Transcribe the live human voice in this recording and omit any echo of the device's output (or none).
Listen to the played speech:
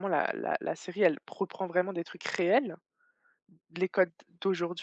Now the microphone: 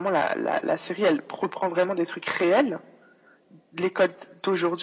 none